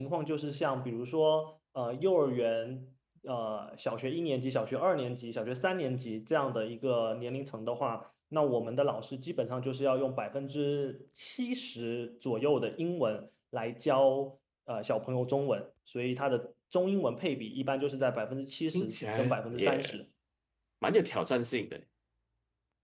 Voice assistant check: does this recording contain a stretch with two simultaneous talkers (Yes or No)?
Yes